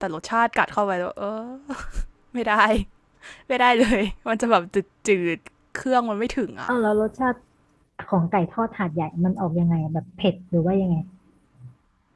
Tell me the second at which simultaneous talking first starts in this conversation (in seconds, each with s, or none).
none